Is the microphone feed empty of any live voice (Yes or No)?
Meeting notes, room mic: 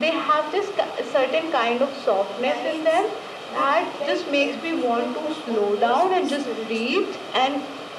No